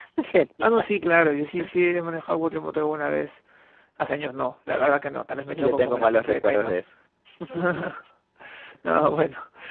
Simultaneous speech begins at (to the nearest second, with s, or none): 5 s